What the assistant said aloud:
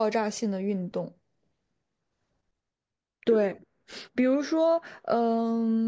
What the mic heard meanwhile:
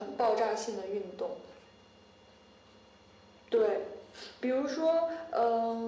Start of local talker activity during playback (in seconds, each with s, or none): none